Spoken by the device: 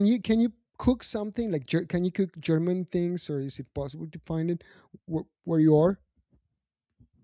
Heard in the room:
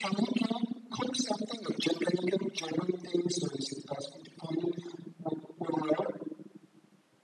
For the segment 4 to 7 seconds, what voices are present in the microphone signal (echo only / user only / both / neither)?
echo only